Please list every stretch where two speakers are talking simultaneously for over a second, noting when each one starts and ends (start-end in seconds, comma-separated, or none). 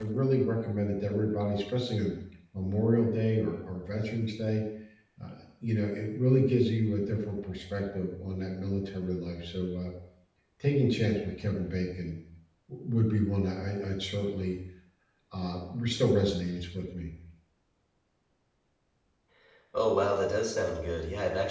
none